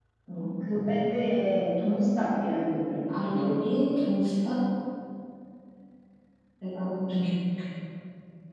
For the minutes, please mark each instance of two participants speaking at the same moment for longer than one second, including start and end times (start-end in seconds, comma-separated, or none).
none